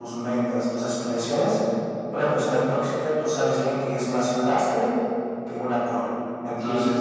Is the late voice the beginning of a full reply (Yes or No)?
Yes